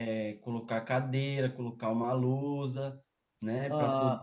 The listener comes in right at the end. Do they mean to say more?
No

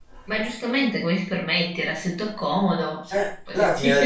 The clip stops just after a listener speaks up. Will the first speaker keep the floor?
No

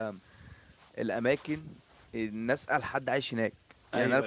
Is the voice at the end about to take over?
No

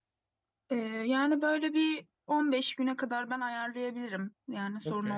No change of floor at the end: No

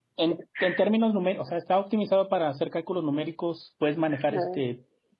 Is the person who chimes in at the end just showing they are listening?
Yes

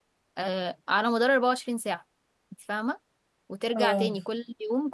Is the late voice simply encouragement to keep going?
Yes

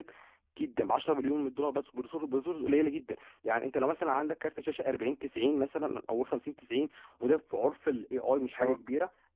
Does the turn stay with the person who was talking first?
Yes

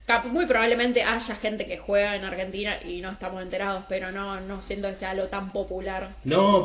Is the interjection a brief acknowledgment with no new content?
No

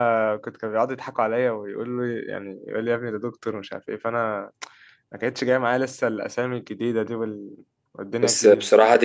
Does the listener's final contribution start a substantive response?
Yes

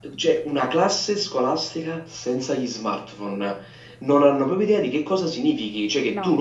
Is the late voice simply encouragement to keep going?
Yes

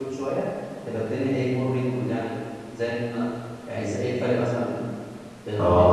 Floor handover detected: Yes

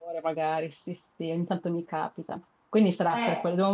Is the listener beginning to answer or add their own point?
No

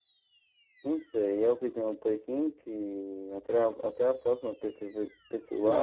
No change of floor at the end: No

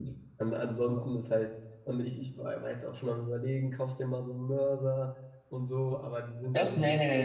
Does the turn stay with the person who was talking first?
No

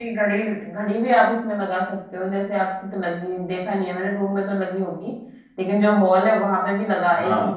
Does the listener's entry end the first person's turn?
No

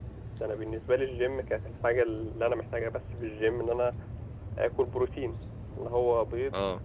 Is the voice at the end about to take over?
No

